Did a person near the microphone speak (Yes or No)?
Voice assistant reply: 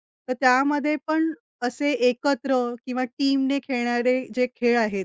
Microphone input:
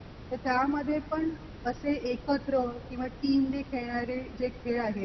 No